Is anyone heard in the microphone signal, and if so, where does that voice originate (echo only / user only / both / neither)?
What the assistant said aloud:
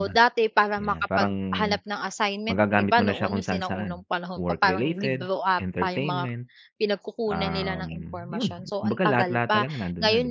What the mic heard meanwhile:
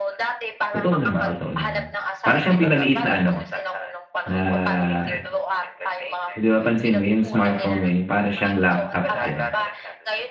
both